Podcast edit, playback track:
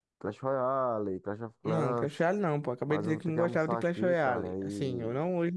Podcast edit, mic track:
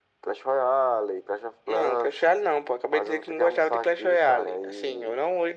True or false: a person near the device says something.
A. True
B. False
B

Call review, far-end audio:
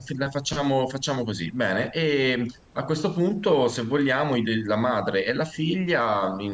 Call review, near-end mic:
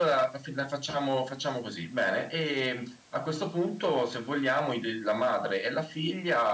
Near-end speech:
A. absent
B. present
A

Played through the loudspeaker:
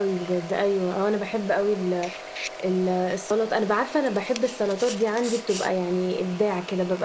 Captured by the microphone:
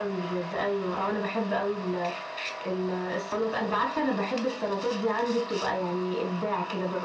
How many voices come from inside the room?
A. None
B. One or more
A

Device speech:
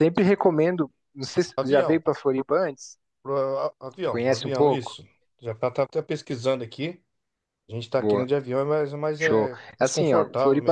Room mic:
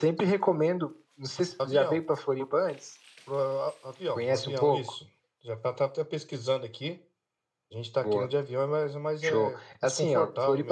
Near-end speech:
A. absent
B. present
A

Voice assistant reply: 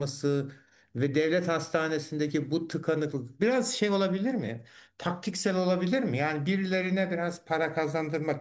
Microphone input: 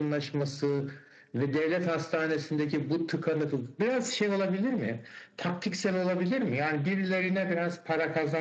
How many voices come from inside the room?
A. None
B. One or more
A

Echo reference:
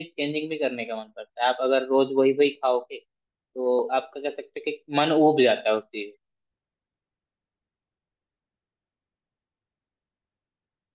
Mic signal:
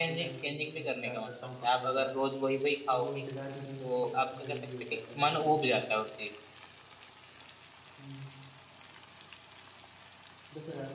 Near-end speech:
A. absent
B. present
B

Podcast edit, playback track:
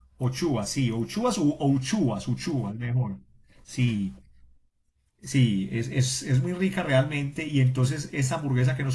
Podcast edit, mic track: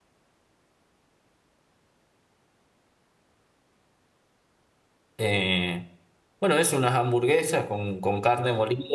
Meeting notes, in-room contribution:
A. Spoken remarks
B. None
A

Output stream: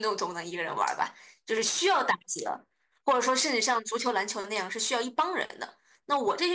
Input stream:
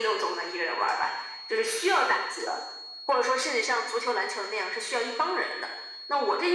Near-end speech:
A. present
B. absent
B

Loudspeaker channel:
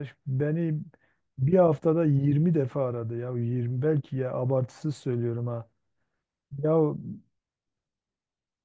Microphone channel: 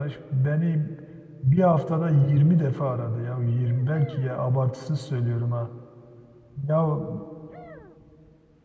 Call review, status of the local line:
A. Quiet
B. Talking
A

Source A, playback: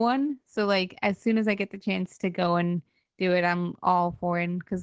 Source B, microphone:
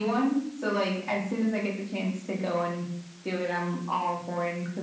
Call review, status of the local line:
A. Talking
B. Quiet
B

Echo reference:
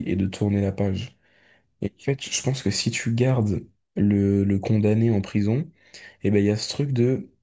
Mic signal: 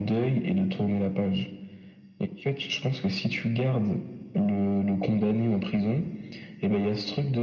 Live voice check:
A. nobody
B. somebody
A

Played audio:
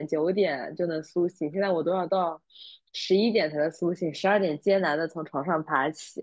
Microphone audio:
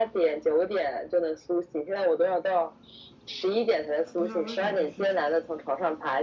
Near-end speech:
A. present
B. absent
A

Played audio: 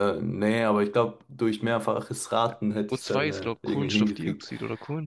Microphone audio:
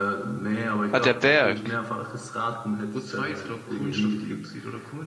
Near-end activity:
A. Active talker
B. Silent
A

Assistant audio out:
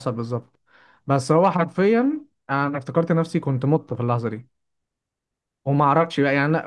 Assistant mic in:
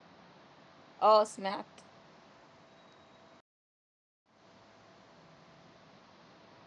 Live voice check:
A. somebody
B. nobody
A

